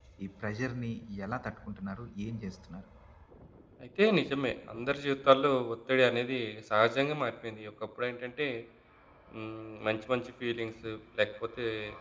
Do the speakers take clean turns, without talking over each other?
Yes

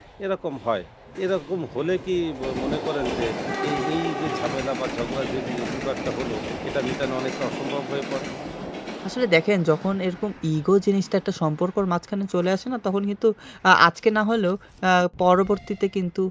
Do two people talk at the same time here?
No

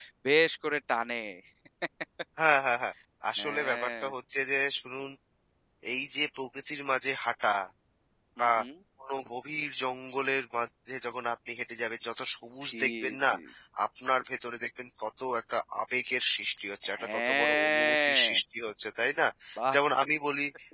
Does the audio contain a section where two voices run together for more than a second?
Yes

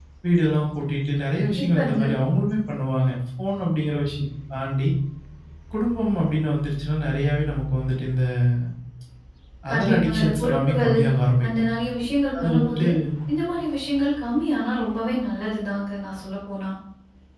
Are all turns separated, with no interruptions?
No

